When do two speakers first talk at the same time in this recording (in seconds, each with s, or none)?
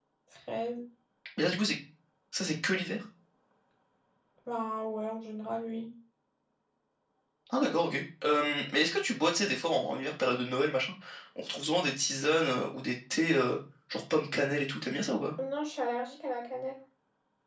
none